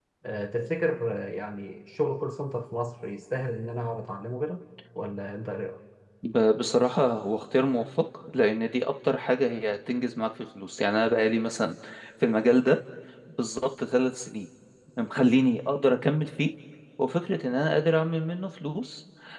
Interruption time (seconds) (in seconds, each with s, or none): none